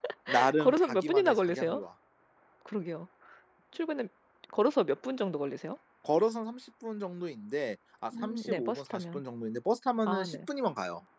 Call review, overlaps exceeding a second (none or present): present